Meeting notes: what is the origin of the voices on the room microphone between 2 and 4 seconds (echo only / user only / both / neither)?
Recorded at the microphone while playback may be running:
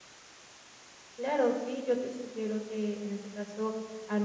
user only